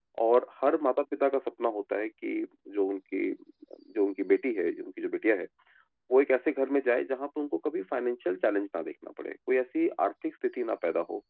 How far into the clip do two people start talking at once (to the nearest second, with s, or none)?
none